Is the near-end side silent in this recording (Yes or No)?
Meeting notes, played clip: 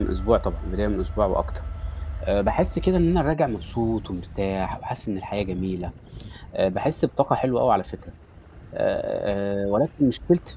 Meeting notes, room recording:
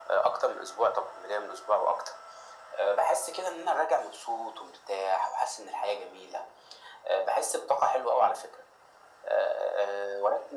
Yes